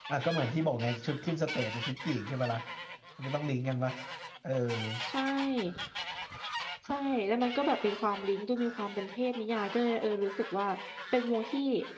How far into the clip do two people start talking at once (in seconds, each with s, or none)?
none